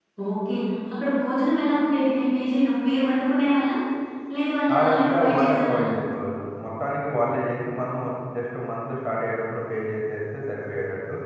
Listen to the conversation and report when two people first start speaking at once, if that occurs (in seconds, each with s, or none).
4.8 s